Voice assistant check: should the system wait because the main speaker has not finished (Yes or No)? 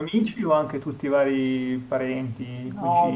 No